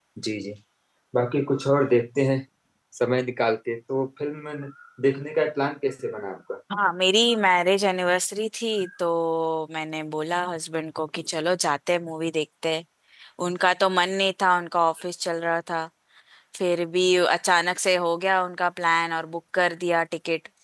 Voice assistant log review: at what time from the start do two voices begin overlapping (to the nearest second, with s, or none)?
none